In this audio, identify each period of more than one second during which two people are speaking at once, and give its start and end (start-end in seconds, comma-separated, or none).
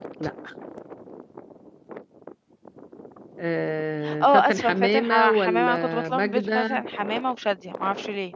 4.2-6.8